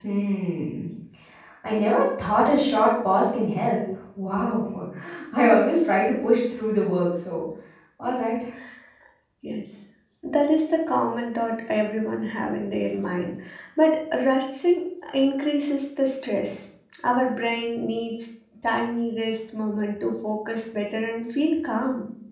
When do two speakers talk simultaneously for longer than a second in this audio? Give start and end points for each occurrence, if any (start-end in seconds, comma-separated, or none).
none